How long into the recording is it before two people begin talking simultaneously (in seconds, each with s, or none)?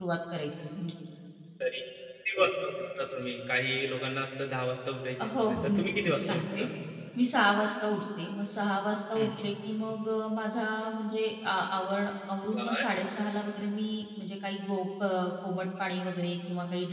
5.3 s